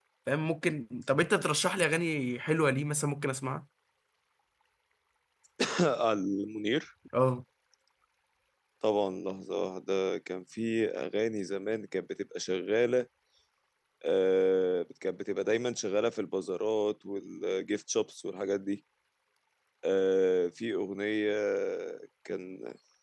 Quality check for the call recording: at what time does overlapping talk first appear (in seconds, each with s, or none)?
none